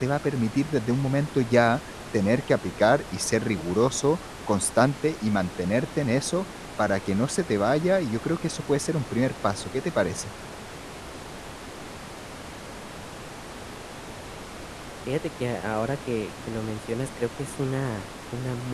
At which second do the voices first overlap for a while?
none

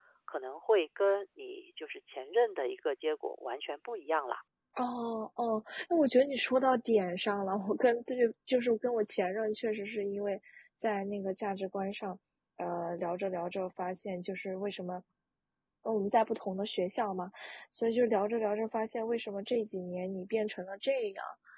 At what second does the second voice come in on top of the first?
none

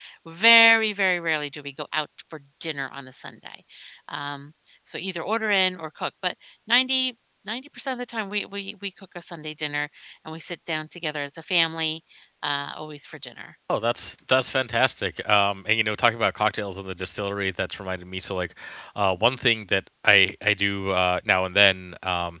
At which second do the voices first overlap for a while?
none

